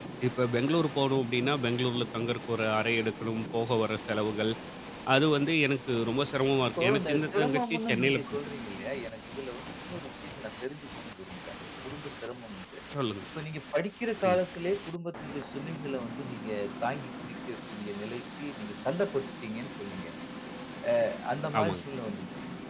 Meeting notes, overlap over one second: present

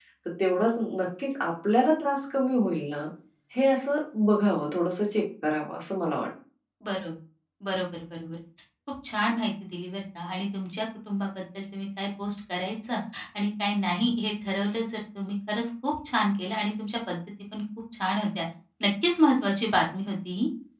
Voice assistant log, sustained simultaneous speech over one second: none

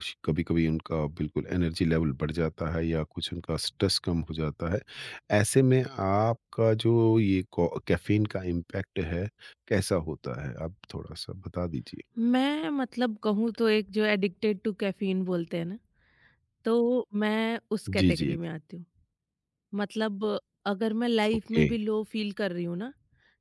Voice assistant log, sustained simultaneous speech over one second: none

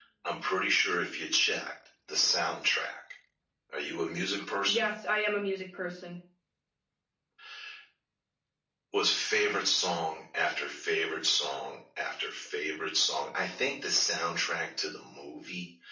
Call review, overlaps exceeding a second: none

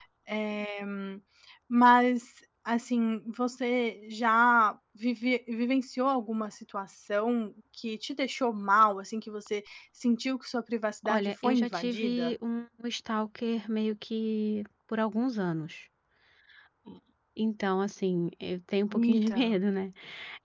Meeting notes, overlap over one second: present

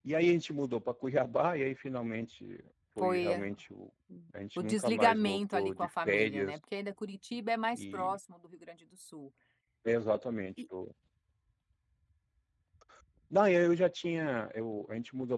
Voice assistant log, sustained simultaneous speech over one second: present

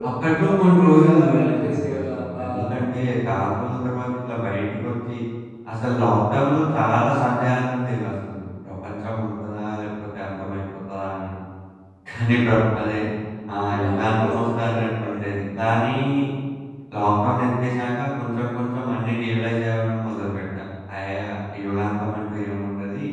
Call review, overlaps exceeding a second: present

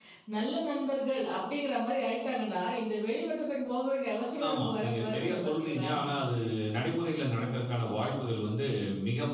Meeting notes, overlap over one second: present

